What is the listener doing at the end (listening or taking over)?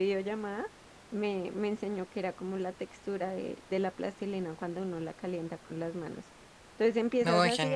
listening